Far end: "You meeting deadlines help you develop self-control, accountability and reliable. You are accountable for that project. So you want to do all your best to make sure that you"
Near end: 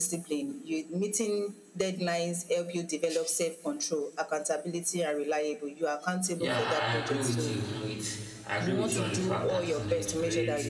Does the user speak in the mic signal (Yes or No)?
Yes